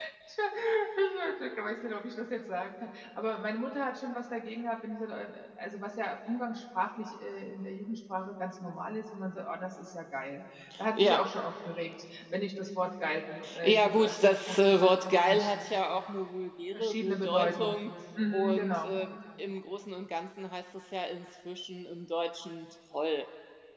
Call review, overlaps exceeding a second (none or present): present